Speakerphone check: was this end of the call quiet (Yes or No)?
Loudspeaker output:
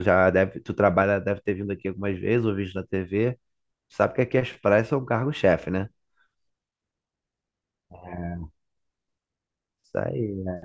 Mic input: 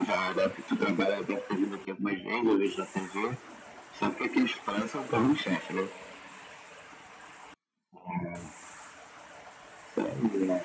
Yes